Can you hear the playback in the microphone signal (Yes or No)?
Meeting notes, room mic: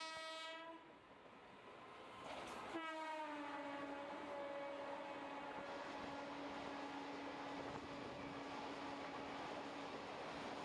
No